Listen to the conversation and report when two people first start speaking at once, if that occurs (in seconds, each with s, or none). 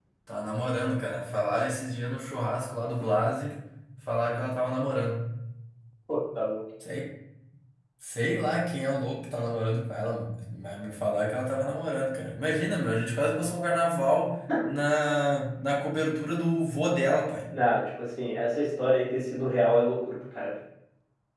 none